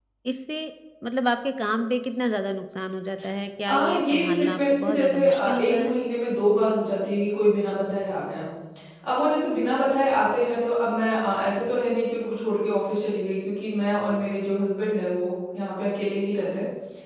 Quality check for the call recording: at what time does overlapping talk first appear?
3.7 s

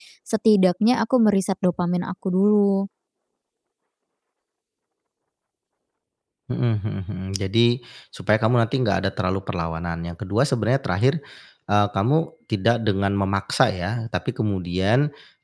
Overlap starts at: none

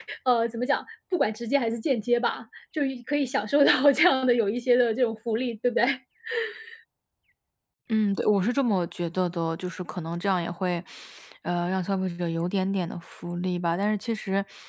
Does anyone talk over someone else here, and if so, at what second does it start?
none

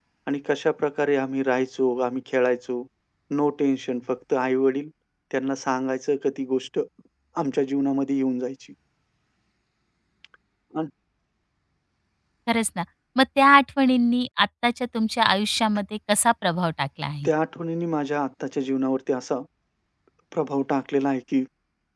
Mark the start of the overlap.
none

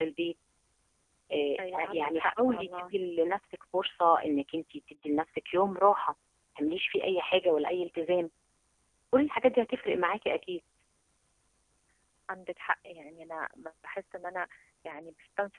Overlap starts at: 1.6 s

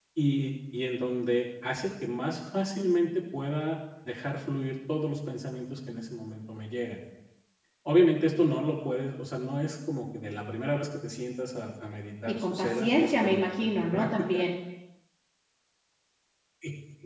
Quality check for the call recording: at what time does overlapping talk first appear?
12.3 s

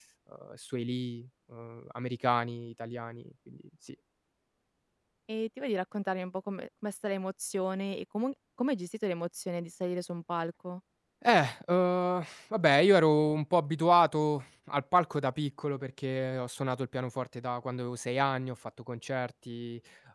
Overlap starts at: none

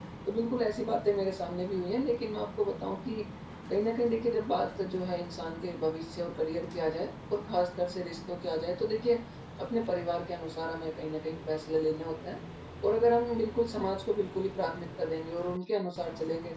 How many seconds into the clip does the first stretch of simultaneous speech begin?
none

